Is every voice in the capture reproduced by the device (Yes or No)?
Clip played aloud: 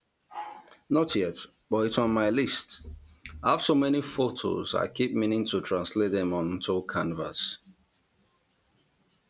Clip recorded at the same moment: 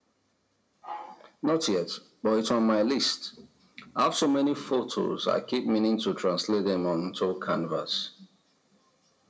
Yes